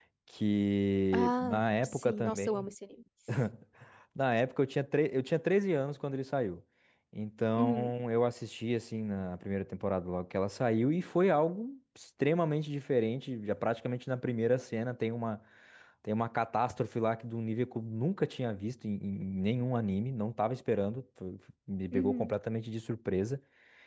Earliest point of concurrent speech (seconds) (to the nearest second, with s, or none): 1 s